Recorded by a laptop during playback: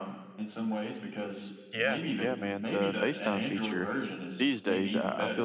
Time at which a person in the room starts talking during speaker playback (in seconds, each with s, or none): 1.7 s